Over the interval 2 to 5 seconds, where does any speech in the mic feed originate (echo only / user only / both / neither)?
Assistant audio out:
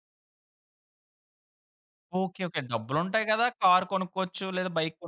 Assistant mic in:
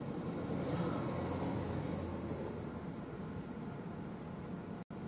neither